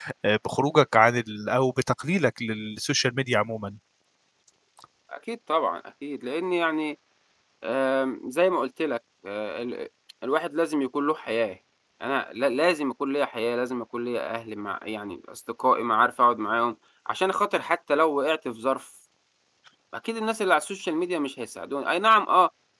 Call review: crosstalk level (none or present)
none